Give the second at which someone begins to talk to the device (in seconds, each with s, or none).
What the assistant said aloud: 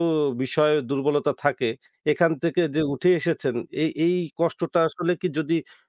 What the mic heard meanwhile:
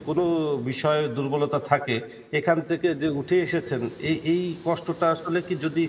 none